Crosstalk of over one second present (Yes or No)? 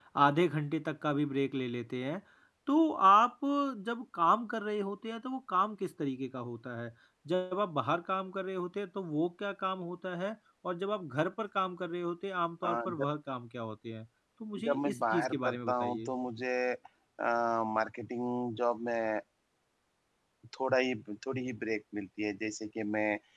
Yes